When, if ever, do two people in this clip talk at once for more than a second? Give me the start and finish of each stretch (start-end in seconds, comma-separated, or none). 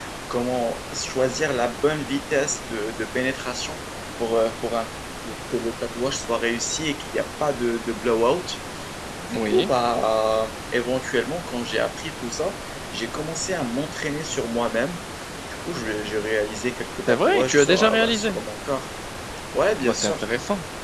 17.1-18.4